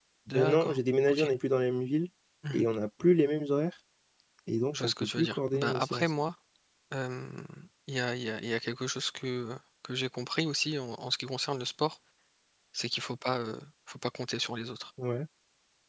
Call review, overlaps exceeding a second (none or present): present